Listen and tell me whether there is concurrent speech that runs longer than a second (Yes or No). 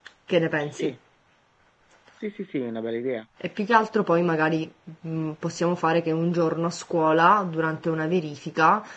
No